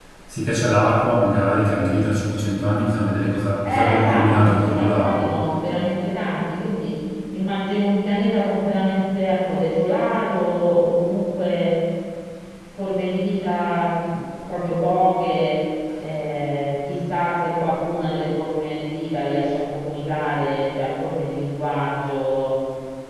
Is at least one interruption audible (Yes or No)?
Yes